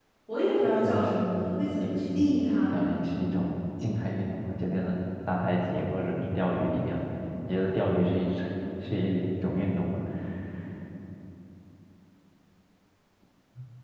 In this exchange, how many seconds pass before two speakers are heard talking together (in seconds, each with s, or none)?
0.8 s